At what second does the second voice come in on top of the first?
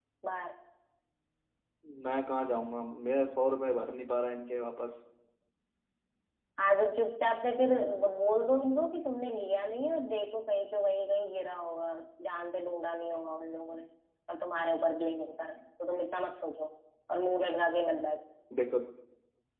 none

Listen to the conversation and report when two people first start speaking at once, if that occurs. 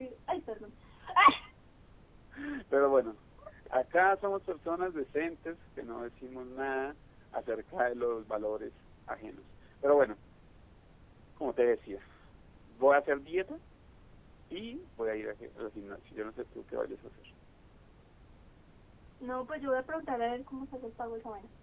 none

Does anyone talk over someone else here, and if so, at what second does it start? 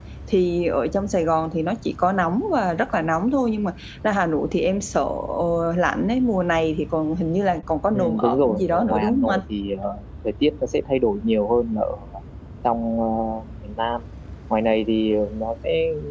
7.9 s

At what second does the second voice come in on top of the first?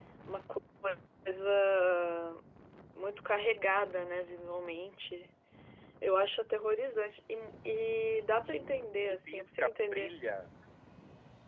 8.4 s

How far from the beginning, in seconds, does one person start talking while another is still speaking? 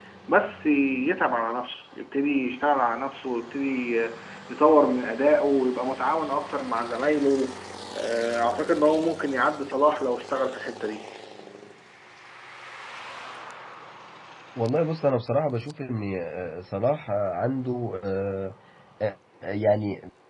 none

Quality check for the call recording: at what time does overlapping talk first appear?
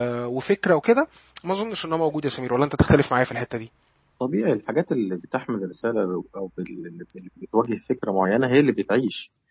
none

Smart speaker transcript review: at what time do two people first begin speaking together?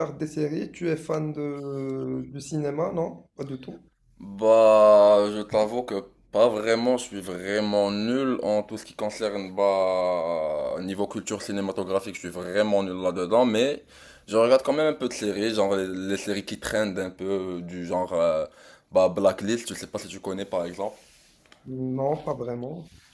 none

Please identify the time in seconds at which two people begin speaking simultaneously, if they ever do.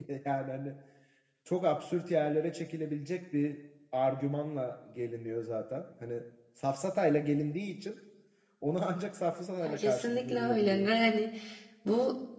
9.7 s

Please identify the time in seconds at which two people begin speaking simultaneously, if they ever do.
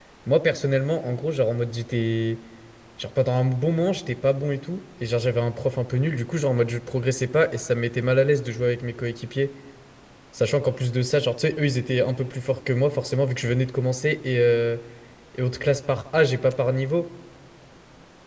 none

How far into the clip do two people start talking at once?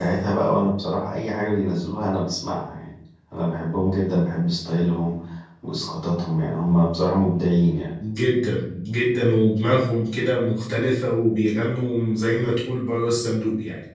none

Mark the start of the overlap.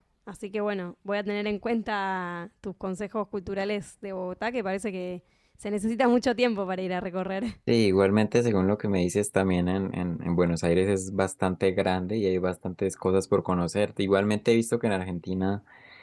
none

